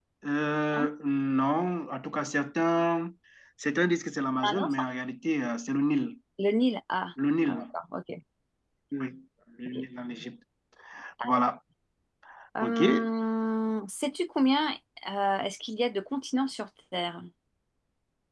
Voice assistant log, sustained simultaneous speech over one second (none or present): none